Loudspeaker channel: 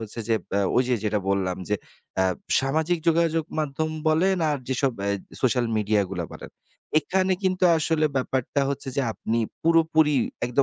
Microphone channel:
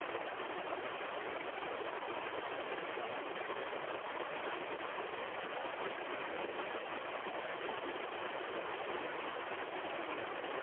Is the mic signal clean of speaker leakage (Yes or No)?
Yes